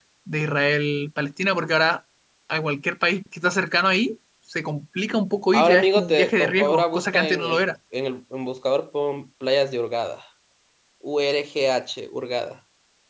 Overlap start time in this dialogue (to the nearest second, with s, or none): 6 s